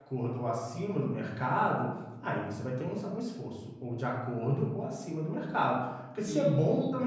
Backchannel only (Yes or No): Yes